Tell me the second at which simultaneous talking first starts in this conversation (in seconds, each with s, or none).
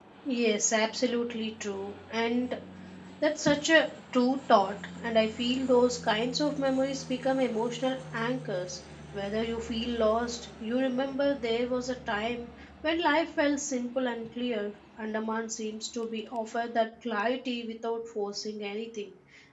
none